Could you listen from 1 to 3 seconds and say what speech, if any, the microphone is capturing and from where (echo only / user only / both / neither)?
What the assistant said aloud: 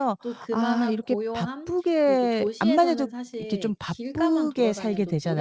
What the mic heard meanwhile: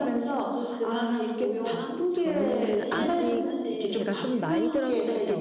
both